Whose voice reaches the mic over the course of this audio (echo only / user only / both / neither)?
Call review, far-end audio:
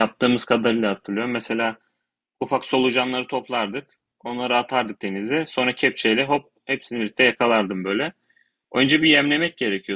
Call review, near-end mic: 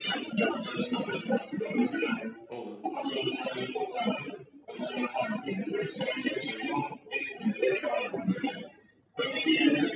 both